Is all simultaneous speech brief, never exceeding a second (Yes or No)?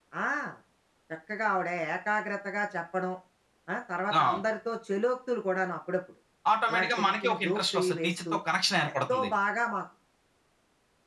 No